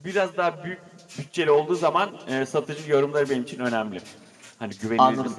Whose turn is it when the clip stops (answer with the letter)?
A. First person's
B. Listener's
B